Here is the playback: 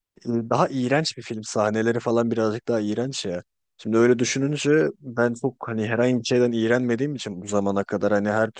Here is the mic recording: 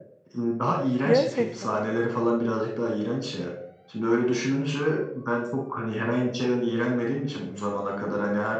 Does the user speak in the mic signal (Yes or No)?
Yes